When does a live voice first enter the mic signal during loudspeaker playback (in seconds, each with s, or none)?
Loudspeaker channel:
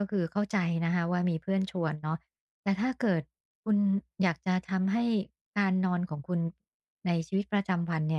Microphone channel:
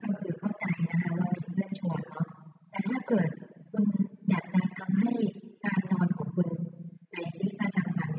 none